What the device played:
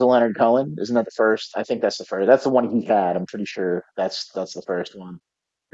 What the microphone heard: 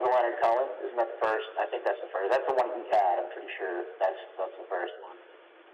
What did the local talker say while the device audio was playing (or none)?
none